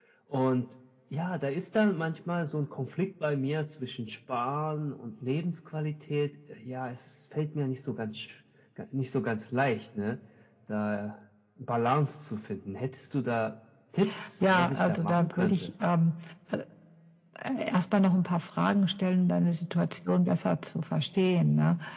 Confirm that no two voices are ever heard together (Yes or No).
No